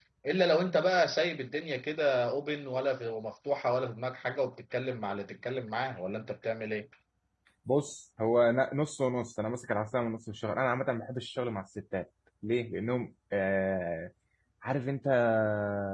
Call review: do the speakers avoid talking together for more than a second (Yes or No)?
Yes